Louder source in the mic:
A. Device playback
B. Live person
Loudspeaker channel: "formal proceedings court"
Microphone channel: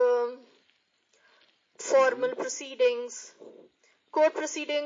A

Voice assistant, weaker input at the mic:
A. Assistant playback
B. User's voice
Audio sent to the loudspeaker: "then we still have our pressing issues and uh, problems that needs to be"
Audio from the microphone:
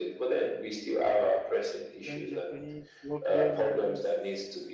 B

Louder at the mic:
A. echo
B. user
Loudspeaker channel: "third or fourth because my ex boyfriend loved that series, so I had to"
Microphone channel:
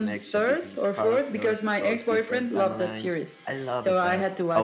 A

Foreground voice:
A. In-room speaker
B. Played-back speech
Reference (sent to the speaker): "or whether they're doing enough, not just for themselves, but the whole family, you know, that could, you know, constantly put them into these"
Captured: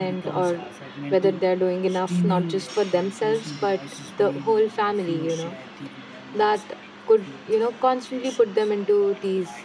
B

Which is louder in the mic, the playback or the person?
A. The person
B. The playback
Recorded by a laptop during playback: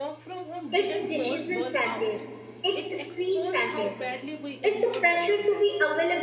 A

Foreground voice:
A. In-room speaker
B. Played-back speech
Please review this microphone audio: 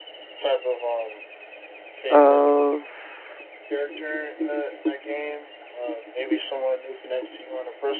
A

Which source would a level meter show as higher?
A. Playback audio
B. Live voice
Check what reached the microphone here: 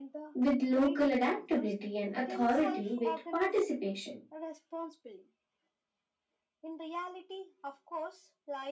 B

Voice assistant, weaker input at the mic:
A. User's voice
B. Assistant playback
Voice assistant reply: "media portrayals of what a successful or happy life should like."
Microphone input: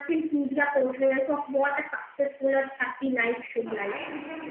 A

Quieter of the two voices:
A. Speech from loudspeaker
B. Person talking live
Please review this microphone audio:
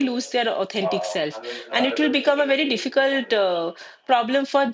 A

